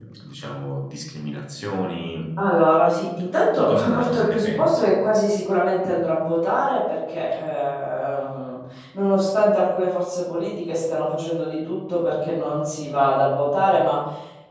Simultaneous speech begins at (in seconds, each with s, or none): 3.5 s